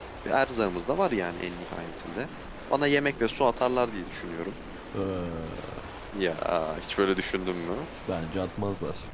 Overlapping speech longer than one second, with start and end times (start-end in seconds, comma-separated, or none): none